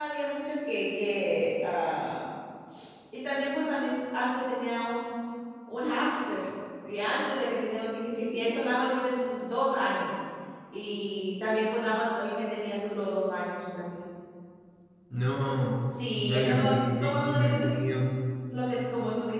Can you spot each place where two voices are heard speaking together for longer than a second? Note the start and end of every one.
16.3-17.8

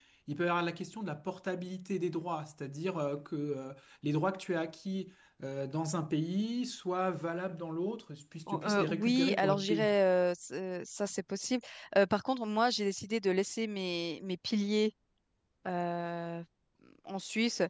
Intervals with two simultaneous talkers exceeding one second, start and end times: 8.5-9.9

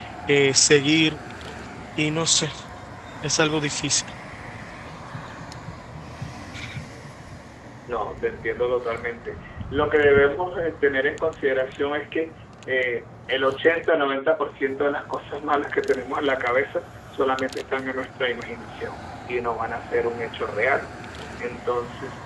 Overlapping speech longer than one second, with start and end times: none

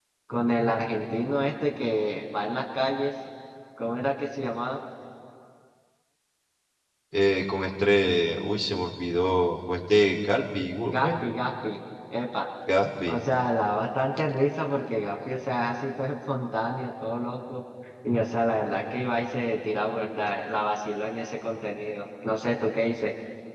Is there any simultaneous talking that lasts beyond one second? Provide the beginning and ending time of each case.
none

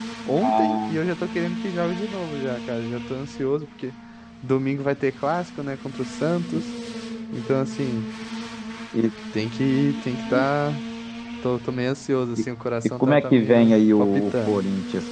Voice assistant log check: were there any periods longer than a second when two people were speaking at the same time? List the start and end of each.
13.0-14.6

